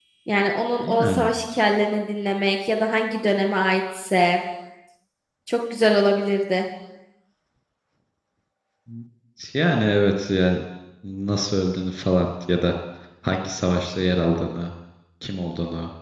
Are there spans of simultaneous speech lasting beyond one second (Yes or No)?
No